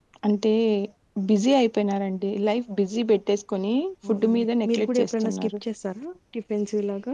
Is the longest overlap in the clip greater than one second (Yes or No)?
Yes